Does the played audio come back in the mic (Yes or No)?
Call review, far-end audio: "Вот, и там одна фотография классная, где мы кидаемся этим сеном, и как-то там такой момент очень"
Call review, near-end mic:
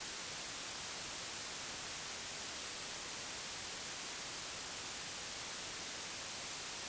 No